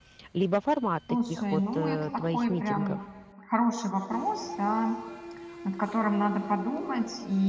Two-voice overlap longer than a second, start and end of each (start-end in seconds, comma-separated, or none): 1.2-3.0